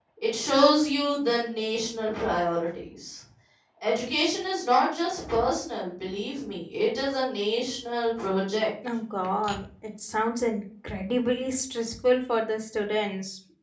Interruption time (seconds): none

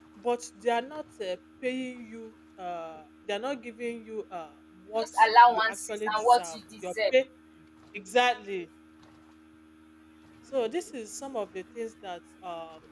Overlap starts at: 5 s

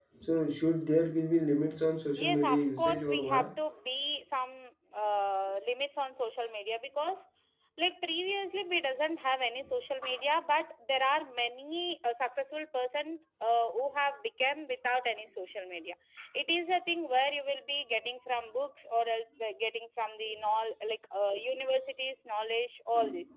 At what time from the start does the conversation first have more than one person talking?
2 s

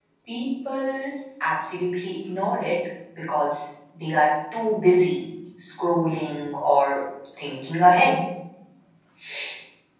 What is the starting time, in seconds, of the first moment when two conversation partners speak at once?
none

